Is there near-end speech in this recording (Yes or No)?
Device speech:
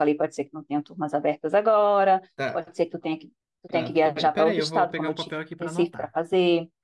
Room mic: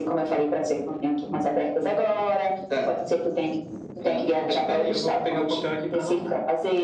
No